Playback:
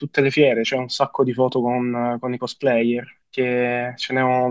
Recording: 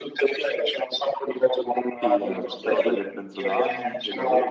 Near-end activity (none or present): present